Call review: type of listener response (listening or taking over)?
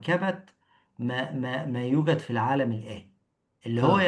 listening